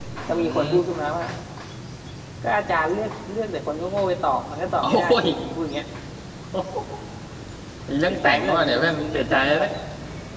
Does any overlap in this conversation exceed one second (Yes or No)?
Yes